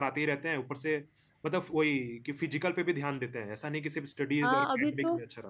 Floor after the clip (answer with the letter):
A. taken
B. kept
A